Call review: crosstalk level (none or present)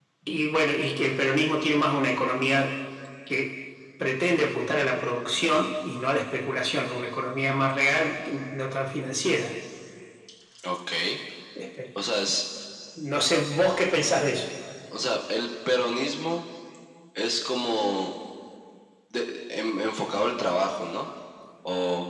none